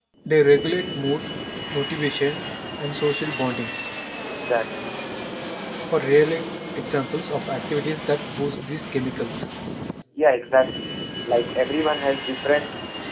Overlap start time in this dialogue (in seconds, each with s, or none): none